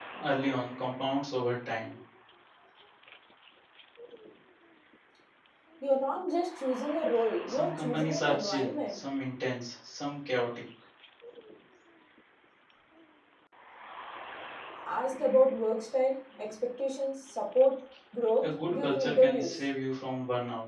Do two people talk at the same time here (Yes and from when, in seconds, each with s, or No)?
Yes, from 7.5 s